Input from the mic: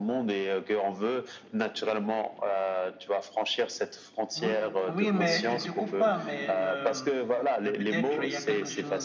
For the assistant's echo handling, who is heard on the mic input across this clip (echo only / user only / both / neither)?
both